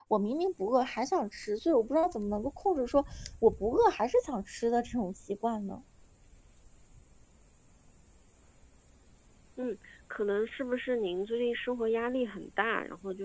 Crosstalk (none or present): none